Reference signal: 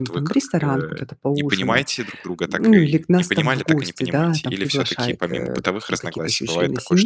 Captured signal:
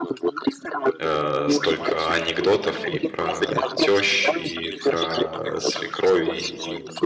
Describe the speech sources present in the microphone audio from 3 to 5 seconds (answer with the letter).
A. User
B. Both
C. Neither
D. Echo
B